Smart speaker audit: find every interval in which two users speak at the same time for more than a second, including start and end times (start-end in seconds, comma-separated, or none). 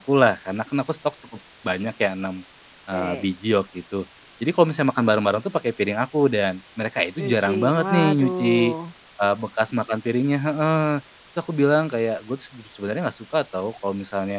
7.2-8.5